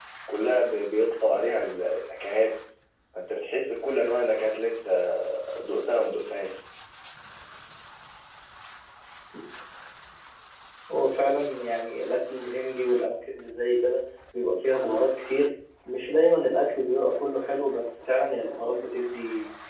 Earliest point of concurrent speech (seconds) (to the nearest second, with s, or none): none